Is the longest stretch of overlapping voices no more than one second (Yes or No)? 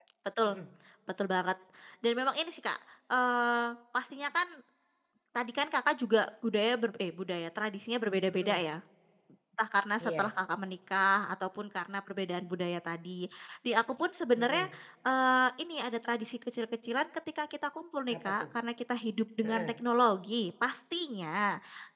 Yes